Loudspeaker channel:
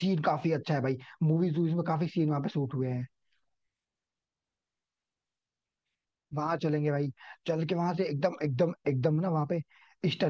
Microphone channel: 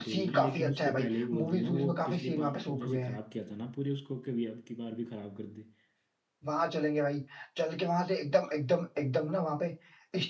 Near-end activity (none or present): present